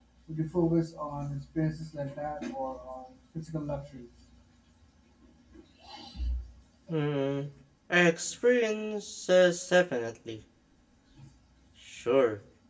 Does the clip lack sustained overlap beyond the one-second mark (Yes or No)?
Yes